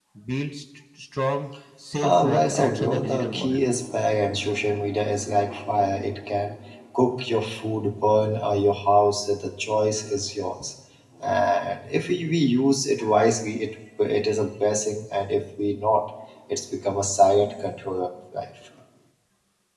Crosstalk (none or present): present